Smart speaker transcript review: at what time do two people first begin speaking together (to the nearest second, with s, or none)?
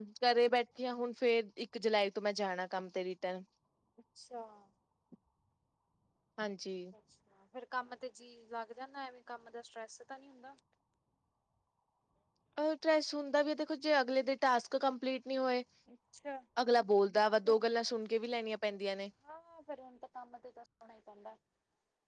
none